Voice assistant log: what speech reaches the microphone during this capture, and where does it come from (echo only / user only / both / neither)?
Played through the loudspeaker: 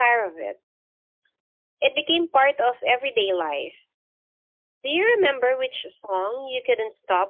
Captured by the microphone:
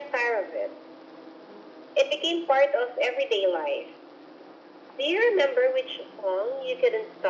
echo only